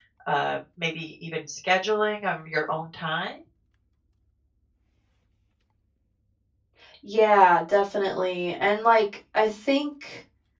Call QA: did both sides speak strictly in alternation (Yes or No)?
Yes